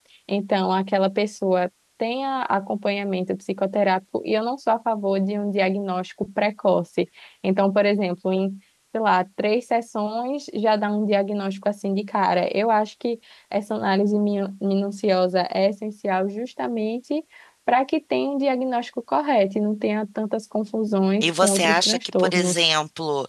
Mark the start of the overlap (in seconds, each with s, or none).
21.2 s